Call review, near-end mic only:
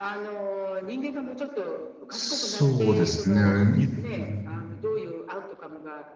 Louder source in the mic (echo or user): user